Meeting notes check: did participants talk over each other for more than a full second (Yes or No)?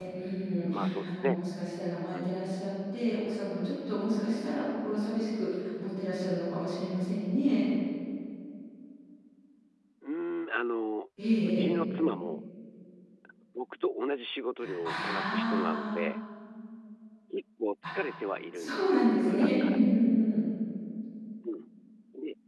Yes